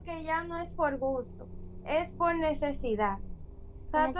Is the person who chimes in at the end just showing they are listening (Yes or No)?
No